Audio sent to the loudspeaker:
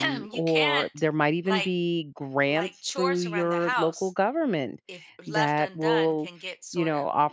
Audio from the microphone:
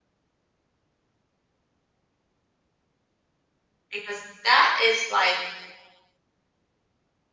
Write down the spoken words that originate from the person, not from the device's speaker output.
because that is like

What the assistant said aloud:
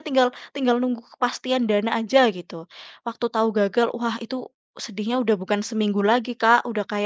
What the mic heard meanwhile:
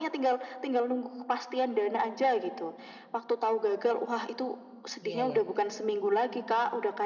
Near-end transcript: Iya iya

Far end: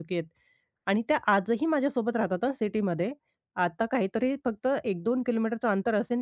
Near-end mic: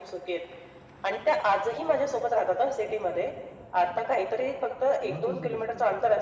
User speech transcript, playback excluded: महत्त्वाची गोष्ट आहे

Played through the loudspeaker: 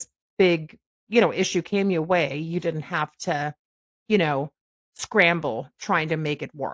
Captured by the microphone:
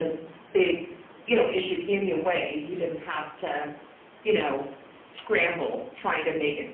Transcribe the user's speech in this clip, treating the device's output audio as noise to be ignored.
none

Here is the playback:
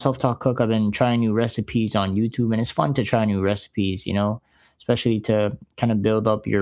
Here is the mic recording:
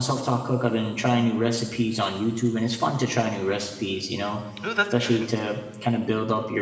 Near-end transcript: Ooh, that's good.

